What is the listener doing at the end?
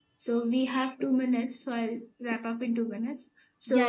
listening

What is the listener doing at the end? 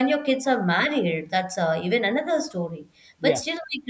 listening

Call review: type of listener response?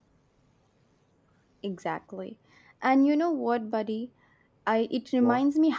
listening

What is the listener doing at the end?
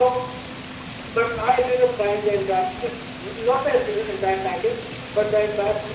listening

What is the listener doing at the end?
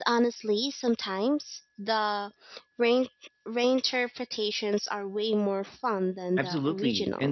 taking over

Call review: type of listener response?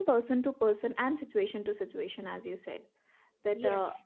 listening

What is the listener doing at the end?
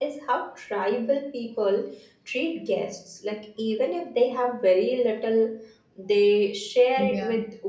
listening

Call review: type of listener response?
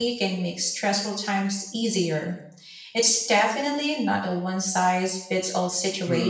taking over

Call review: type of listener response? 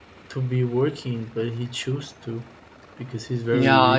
taking over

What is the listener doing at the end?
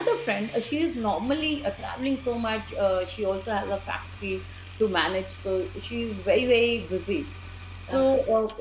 listening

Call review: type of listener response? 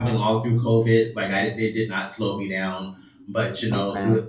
listening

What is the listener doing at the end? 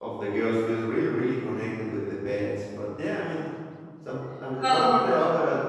listening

